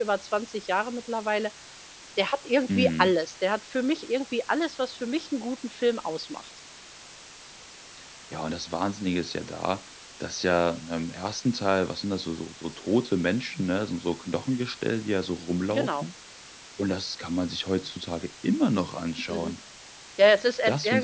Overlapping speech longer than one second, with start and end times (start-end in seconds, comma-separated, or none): none